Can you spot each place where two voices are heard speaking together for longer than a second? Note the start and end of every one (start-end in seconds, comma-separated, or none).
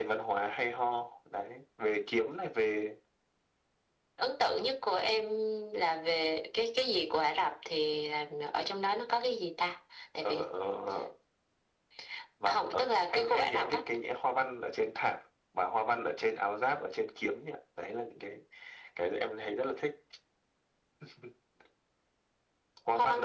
12.5-13.8